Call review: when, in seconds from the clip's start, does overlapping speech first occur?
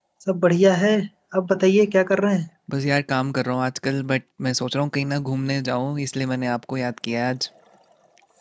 none

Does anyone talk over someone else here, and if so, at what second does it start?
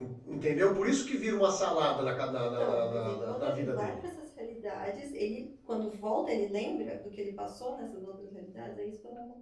2.6 s

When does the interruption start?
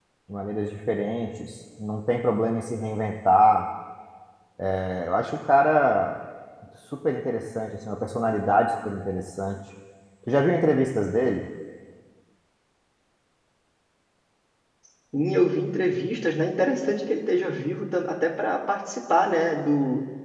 none

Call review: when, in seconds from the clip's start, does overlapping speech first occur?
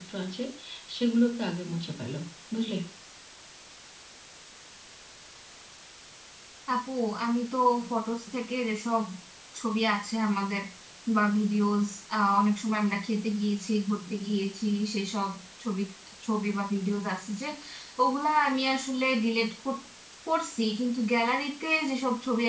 none

